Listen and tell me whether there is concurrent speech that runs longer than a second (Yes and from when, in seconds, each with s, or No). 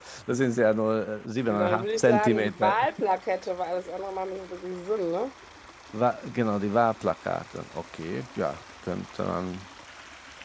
Yes, from 1.5 s